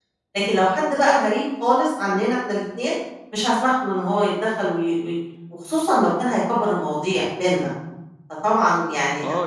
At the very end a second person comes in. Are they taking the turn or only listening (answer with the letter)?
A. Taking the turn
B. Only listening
A